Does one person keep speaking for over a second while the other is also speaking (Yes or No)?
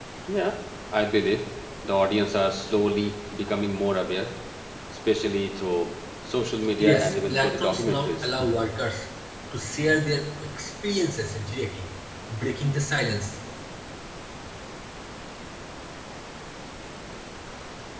Yes